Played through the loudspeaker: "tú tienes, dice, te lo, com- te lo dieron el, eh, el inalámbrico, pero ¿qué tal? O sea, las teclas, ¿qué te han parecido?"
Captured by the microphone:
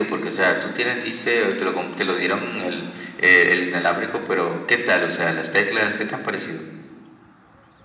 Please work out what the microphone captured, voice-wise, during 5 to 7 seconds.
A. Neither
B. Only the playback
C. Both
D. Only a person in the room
B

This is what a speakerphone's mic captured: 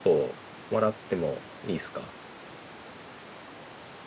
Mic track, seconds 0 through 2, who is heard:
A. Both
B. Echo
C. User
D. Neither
C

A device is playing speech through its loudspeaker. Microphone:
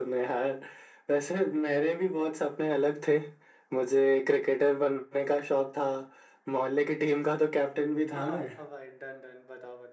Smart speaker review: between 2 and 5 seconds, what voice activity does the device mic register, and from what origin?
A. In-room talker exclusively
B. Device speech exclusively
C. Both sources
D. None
B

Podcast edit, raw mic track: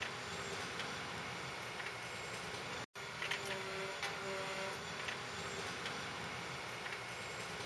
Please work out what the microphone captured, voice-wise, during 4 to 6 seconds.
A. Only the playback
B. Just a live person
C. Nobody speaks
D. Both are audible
C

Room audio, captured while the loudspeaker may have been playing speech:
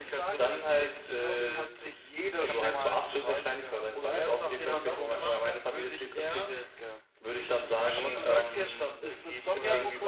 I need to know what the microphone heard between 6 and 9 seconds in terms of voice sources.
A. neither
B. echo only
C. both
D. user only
C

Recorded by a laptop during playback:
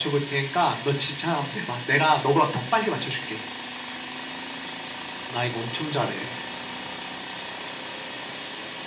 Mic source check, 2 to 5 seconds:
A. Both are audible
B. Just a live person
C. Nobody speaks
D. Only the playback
D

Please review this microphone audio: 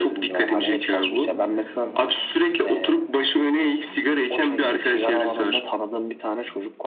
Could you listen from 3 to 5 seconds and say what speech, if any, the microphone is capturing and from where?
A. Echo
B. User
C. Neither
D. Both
D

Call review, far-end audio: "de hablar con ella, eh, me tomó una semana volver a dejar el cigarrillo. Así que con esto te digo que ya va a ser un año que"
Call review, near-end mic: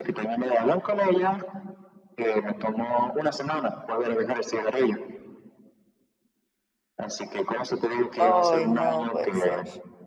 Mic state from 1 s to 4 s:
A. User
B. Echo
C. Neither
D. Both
B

